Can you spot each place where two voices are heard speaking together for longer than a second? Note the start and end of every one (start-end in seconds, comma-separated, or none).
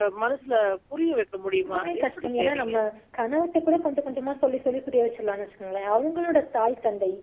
1.6-2.8